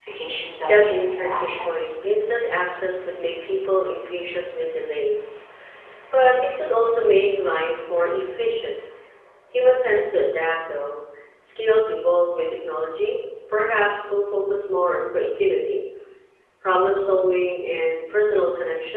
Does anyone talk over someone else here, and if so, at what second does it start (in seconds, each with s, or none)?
0.7 s